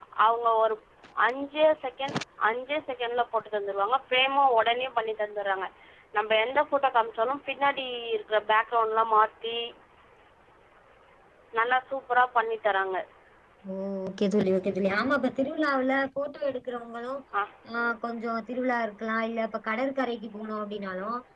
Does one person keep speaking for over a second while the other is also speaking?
No

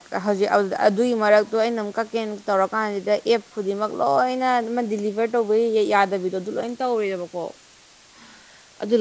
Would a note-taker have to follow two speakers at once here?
No

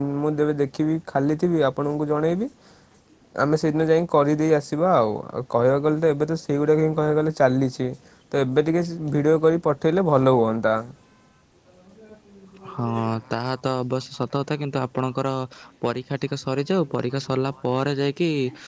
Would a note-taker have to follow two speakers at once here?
No

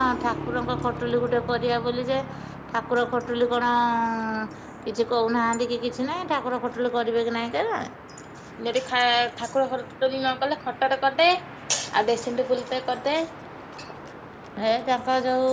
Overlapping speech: No

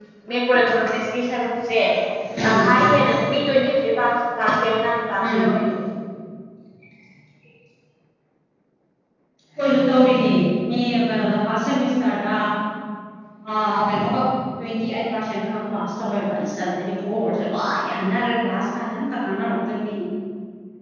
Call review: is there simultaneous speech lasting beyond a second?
No

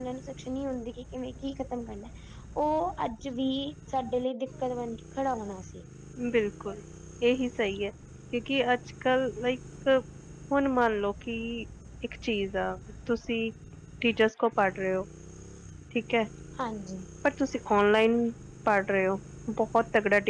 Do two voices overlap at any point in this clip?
No

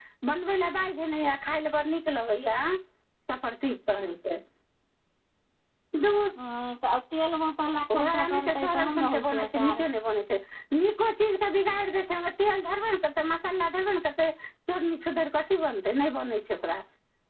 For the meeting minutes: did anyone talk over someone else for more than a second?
Yes, from 7.9 s

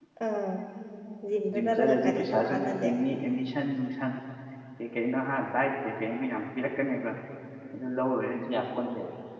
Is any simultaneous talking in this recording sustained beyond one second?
Yes, from 1.5 s

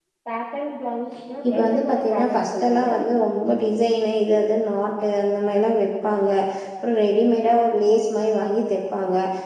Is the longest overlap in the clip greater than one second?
Yes, from 1.6 s

